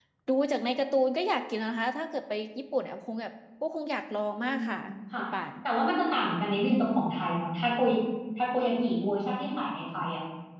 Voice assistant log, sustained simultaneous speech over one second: none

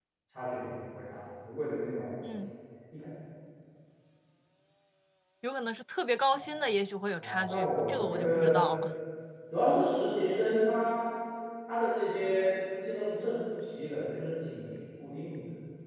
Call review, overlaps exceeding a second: present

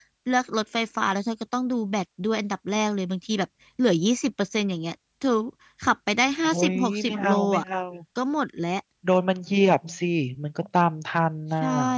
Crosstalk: present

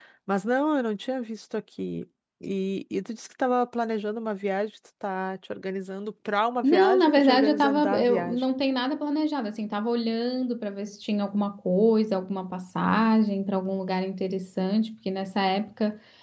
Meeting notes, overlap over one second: present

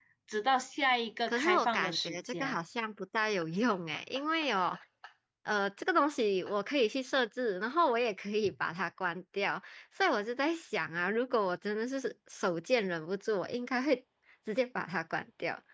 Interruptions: present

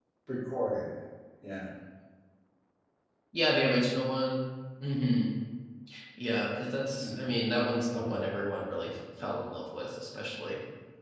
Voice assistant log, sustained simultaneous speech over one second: none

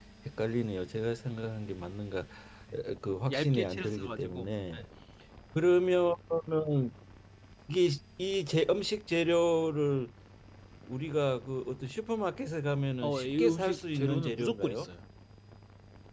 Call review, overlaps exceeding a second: present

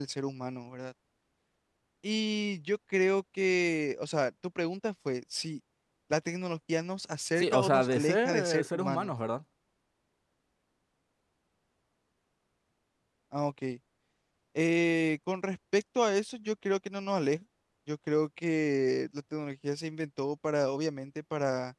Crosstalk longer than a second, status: present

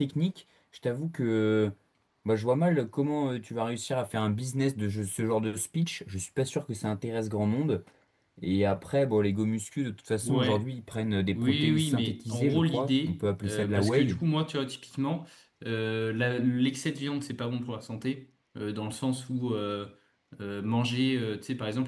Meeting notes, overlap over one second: present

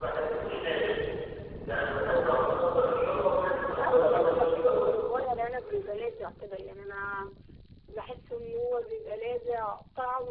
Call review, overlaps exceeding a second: present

